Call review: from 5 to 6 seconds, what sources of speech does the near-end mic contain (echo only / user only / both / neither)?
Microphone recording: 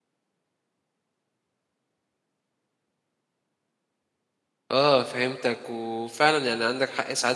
user only